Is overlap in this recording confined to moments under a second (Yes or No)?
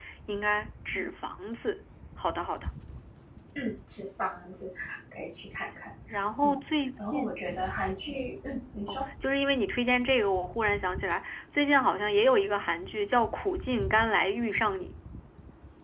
Yes